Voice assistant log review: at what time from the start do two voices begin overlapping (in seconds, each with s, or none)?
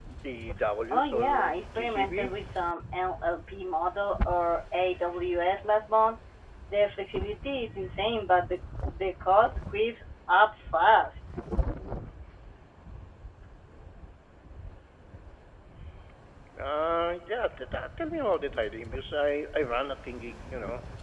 0.9 s